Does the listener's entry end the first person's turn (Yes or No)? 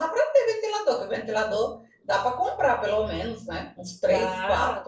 Yes